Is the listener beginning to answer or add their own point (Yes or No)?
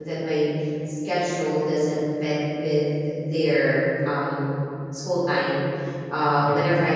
No